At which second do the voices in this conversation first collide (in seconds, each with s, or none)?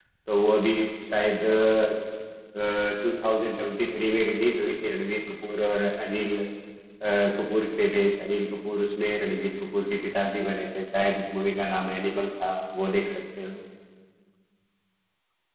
none